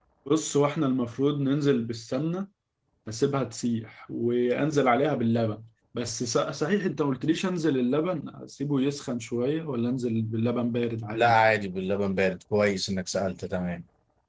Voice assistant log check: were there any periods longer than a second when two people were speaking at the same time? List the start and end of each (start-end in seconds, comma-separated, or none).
none